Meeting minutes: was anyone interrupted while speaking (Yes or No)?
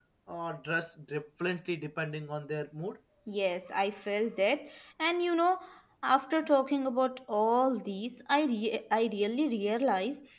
No